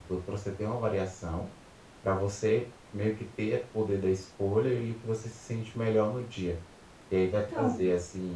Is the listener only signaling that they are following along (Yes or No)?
Yes